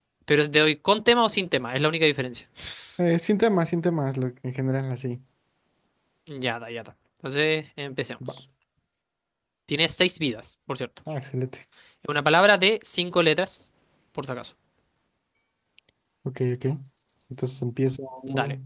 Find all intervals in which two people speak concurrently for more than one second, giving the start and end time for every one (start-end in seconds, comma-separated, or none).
none